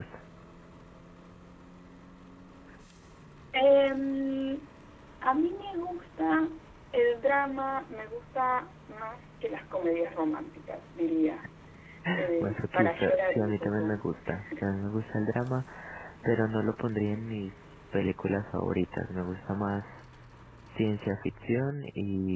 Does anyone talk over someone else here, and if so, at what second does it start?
12.4 s

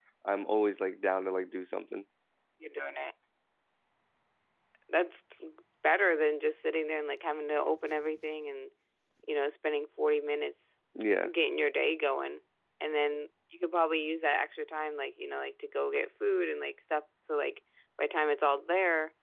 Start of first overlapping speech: none

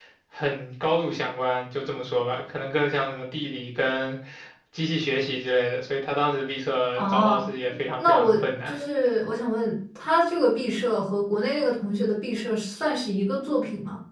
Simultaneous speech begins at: 7.0 s

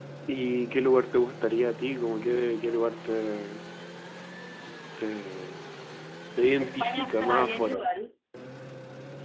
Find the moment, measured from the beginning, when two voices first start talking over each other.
6.6 s

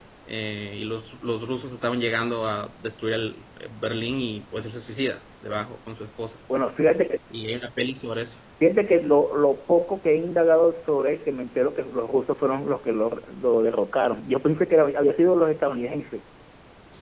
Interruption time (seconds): none

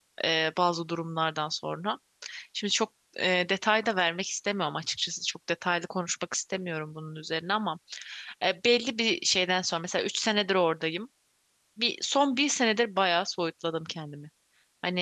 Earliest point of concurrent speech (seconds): none

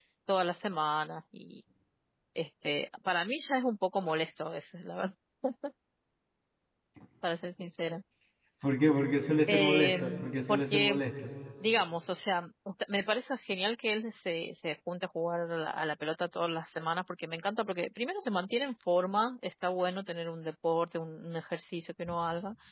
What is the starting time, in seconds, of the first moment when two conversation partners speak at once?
9.5 s

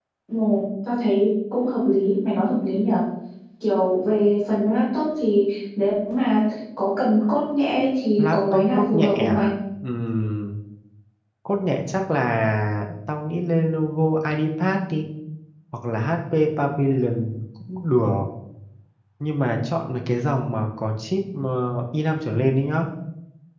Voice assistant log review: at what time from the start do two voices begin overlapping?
8.2 s

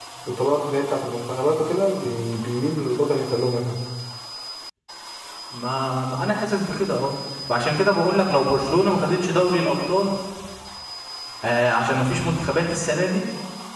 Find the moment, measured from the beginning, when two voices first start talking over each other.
none

